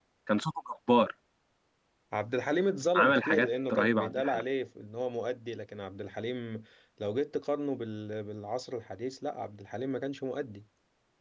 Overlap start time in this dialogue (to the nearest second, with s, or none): 3 s